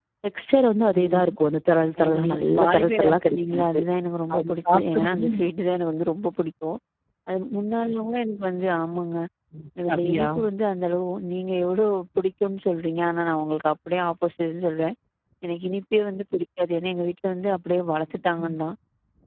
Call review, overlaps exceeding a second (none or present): present